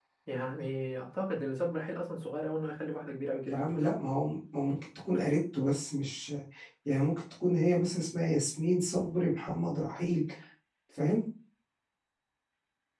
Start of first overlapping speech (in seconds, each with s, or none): none